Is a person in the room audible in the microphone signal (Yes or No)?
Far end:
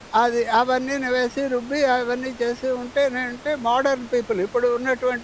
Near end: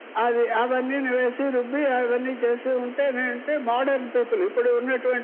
No